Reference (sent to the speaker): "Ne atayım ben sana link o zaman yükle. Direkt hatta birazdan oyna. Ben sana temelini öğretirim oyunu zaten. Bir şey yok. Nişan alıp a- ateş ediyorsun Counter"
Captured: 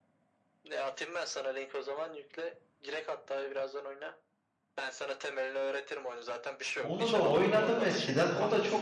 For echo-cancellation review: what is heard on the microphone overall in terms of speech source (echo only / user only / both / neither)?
both